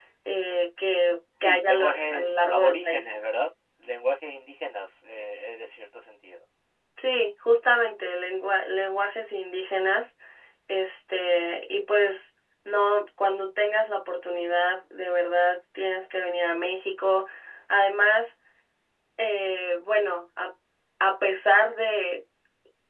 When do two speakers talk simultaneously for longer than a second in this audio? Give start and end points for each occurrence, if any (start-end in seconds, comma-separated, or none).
1.4-3.1